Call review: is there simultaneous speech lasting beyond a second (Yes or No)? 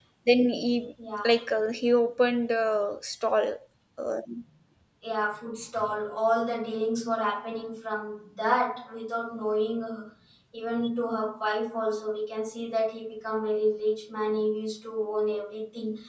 No